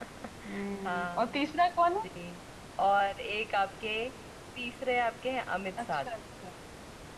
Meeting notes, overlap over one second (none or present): none